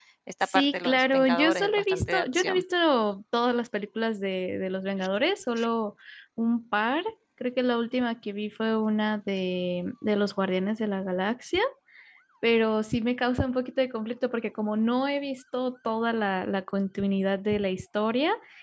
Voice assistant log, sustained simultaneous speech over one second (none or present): present